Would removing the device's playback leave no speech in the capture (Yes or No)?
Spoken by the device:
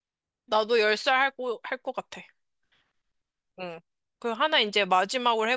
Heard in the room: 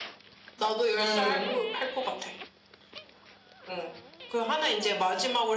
No